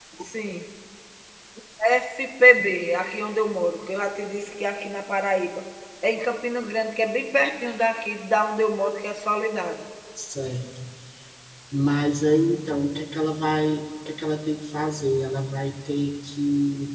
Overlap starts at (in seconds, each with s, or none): none